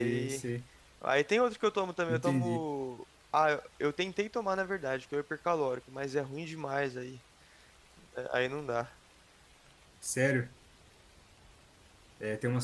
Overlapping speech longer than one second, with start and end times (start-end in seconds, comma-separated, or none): none